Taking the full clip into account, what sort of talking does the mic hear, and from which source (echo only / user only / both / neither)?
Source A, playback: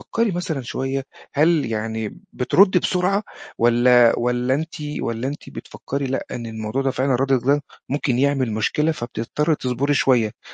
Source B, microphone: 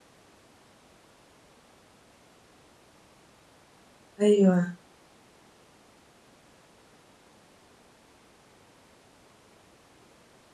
user only